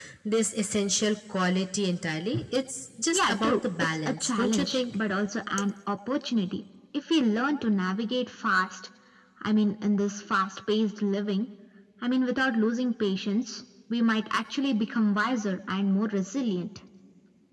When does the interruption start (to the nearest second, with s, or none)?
3 s